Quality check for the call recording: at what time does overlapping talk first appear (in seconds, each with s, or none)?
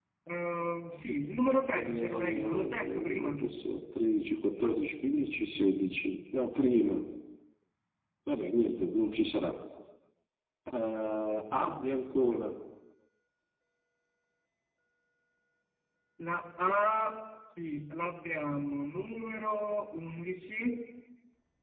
1.8 s